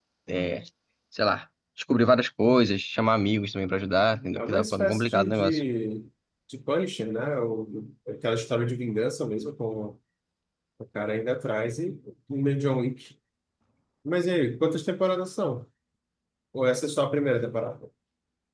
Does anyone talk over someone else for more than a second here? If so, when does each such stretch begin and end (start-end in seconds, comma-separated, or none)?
4.4-5.6